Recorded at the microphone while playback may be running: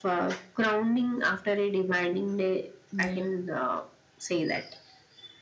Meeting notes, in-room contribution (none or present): present